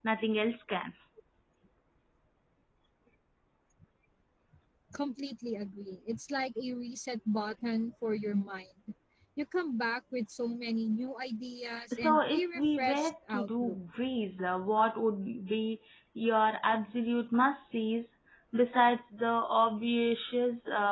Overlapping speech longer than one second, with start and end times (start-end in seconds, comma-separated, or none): 11.9-13.8